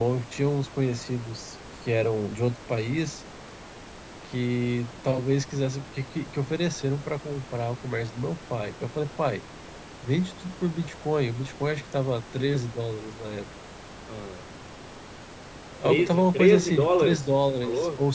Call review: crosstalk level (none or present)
present